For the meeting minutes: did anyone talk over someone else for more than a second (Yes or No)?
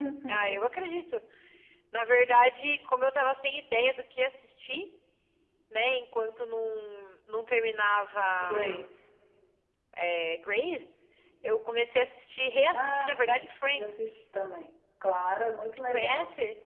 Yes